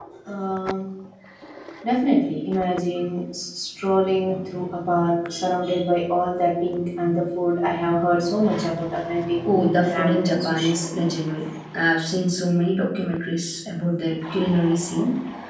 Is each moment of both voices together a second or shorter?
No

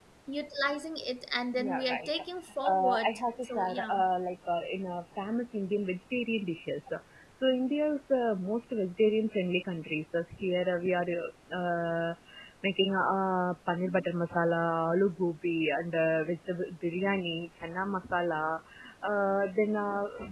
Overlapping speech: Yes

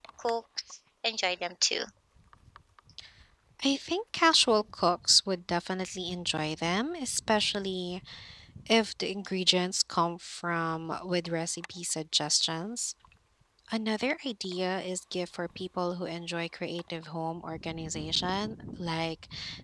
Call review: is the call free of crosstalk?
Yes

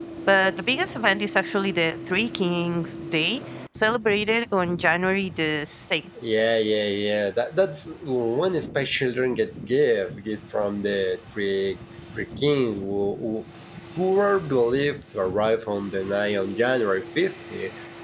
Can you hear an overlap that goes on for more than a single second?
No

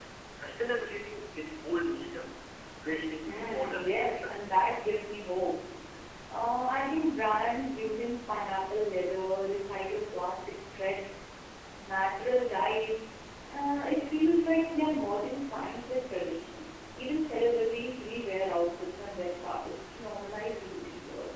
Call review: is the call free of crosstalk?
No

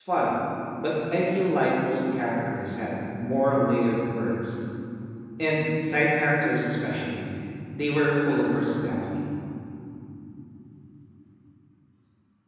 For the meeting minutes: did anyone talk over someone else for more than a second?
No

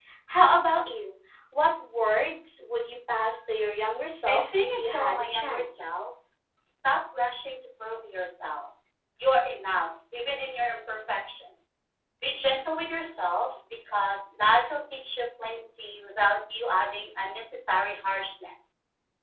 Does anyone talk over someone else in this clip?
Yes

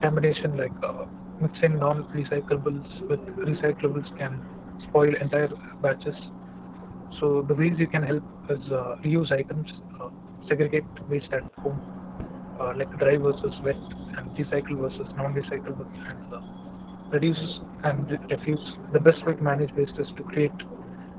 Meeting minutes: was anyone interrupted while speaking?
No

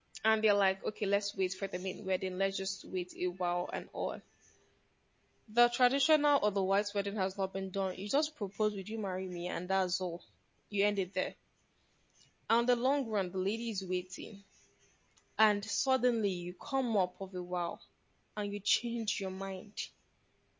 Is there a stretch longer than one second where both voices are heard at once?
No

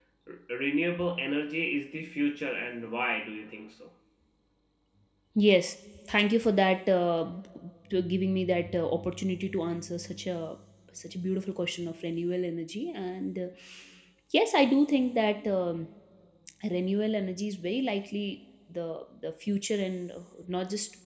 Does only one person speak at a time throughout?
Yes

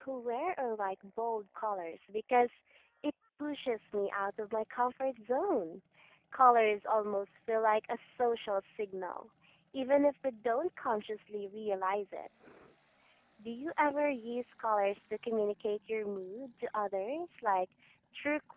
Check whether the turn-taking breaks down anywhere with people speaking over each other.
No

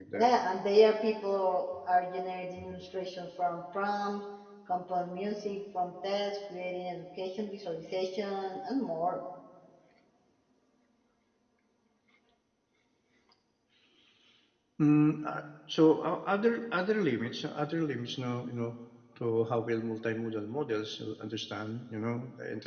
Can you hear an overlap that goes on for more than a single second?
No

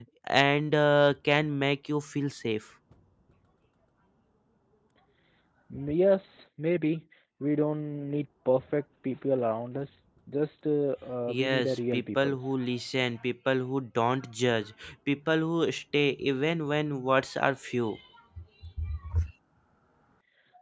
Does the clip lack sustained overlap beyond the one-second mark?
No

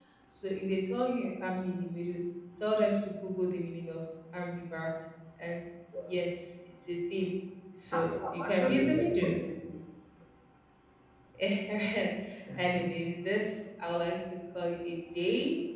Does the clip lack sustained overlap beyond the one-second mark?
No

